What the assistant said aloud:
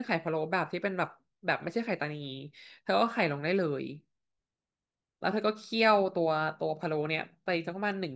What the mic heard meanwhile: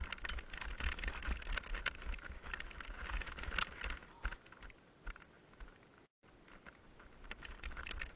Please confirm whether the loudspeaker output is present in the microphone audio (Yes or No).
No